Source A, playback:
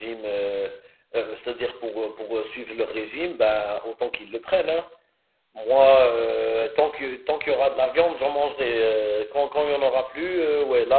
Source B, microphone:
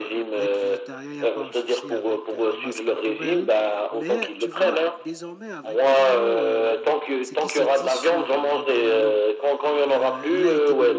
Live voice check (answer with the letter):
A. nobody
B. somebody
B